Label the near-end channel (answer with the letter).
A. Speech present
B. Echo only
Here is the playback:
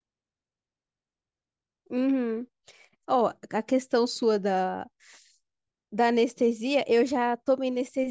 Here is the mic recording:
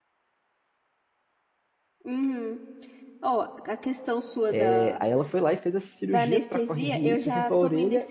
A